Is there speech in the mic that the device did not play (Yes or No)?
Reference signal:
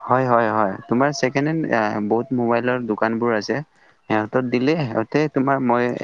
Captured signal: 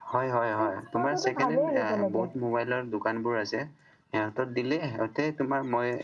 Yes